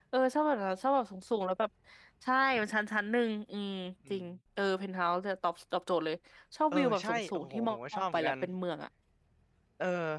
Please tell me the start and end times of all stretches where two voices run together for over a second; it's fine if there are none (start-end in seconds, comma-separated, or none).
6.7-8.3